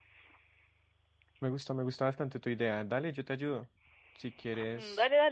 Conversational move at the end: taking over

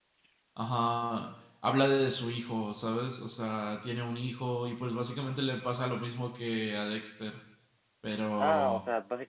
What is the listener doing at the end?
taking over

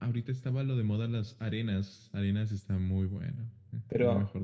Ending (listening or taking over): taking over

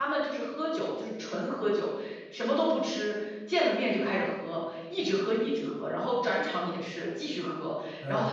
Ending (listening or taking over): listening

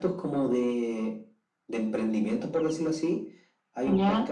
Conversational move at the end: listening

